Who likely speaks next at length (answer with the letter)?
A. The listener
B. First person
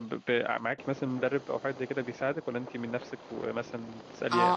A